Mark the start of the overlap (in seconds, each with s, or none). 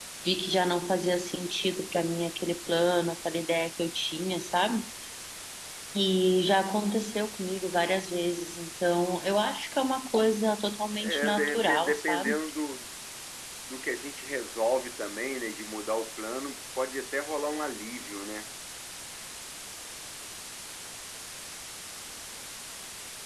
11.0 s